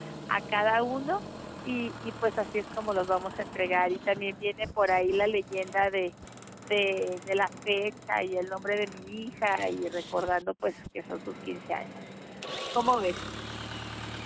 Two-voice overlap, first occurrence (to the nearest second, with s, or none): none